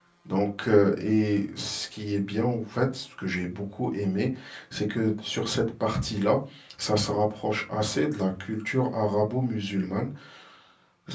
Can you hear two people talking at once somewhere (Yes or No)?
No